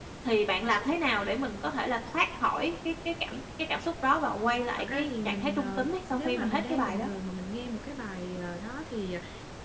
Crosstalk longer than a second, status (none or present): present